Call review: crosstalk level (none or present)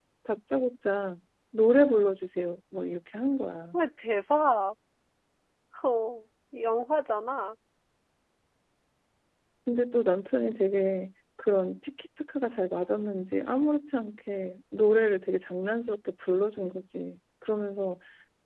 none